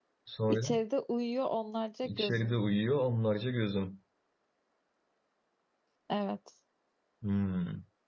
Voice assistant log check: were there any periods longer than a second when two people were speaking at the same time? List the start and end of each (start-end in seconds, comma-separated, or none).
none